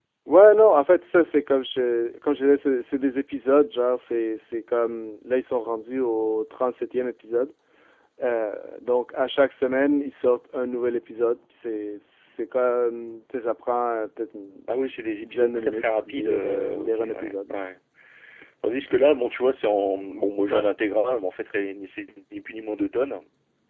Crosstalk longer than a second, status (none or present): present